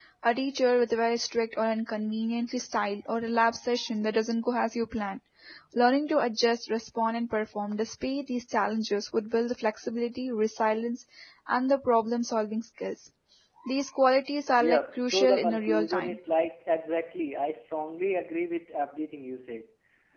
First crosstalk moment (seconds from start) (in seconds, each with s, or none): 14.6 s